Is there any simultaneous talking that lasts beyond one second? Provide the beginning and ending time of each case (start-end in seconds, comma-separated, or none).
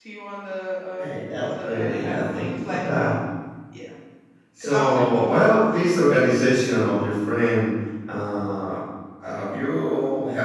1.0-3.1, 4.6-5.9